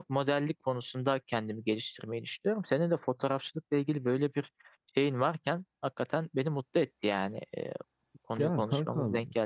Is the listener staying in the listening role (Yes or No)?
No